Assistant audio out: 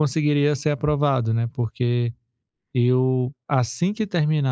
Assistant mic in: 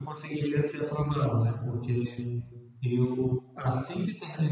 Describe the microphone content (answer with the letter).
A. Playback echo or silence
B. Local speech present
A